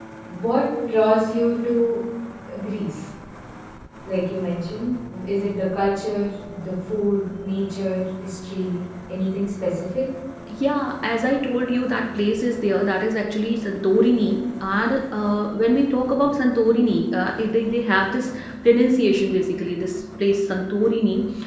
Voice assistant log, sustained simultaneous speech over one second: none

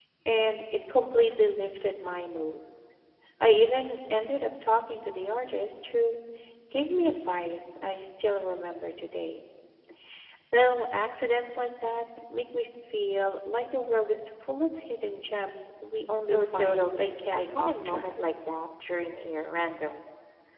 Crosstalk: present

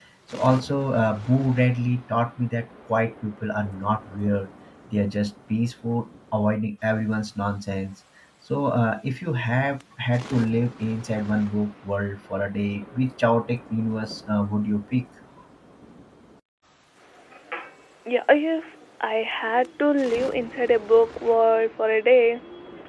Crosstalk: none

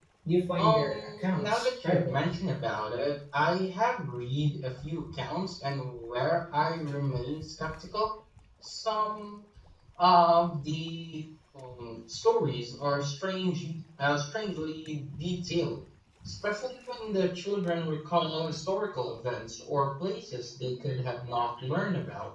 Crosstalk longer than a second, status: present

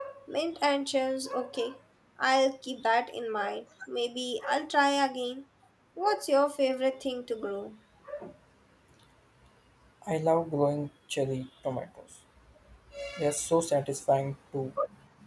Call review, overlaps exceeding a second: none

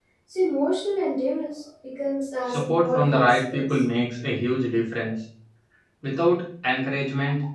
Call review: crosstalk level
present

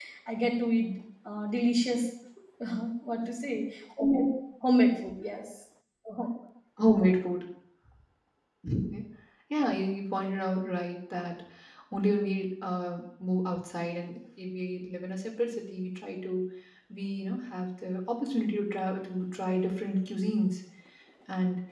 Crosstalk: none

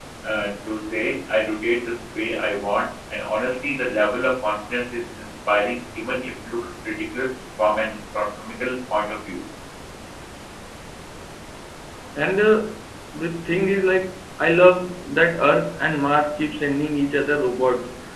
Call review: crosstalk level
none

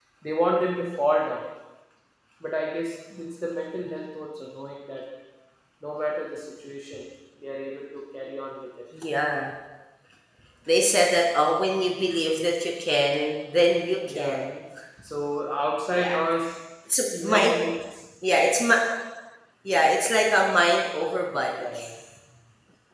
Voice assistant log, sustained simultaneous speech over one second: none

